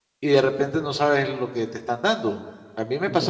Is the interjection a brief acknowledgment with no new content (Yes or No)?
Yes